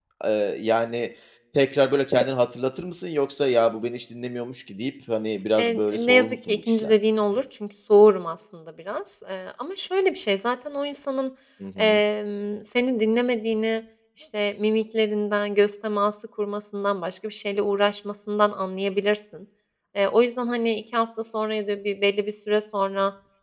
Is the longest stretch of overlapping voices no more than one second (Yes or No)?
No